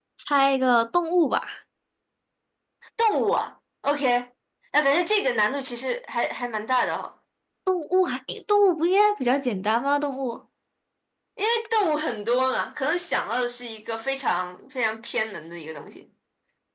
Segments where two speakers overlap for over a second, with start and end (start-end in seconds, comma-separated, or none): none